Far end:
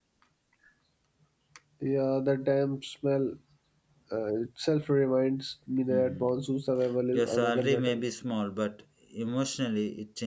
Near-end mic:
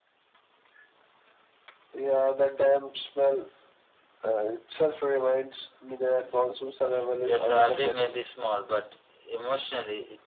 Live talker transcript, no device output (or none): none